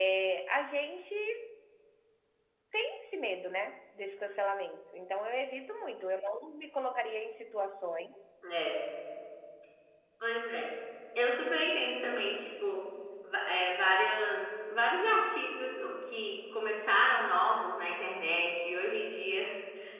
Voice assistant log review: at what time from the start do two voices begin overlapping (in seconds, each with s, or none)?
none